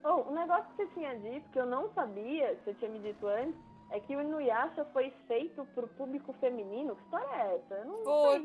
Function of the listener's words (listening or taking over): taking over